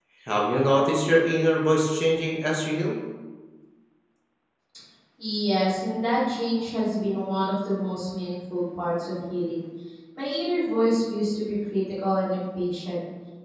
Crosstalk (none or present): none